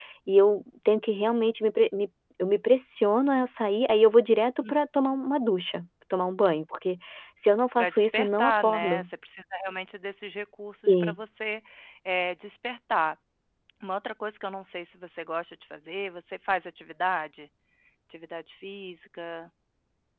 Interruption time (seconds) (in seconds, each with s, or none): 7.8 s